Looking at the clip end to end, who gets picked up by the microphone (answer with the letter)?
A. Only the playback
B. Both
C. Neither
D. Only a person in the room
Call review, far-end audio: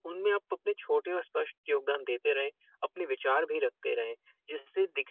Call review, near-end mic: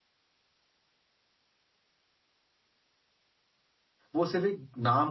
D